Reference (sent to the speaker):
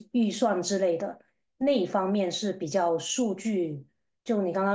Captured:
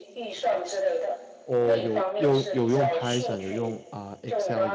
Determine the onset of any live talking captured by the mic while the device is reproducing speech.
1.4 s

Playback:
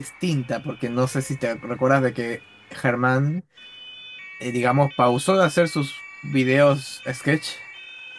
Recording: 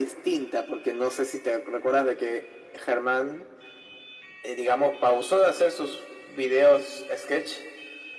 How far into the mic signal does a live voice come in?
none

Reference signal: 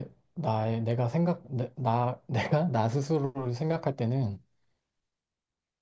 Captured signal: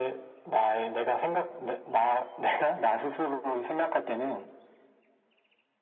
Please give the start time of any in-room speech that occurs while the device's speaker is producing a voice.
none

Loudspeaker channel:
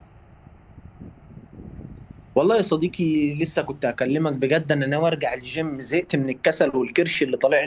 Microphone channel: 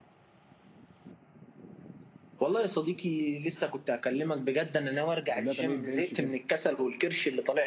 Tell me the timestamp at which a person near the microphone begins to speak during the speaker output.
5.3 s

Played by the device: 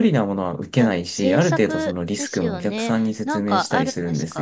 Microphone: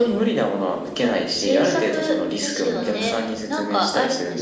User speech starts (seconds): 2.7 s

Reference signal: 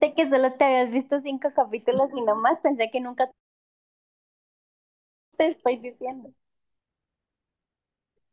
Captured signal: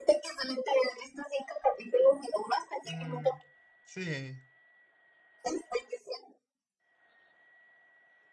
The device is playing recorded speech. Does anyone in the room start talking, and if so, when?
2.8 s

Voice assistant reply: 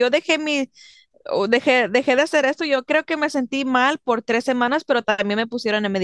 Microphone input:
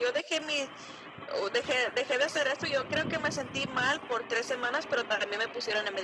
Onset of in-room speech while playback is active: none

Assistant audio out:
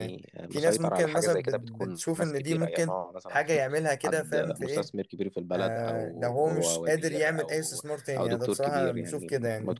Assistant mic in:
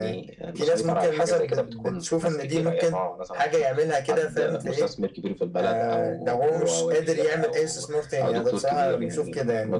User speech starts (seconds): none

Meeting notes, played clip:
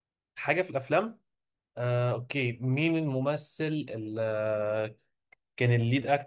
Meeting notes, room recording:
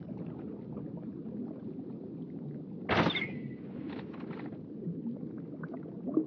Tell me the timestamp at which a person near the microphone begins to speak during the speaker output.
none

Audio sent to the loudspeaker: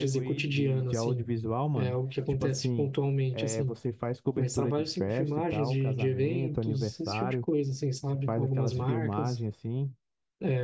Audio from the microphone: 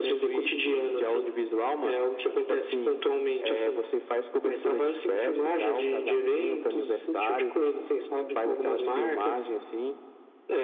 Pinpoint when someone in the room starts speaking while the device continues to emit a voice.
none

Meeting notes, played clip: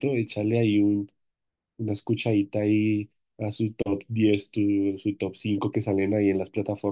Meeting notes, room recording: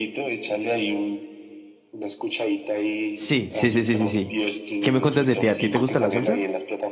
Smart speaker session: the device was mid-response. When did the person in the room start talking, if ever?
3.1 s

